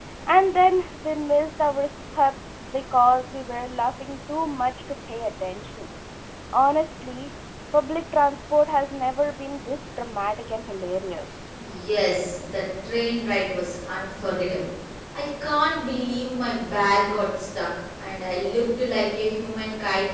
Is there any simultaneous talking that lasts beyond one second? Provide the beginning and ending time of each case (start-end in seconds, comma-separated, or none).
none